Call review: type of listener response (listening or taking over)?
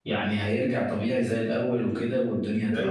taking over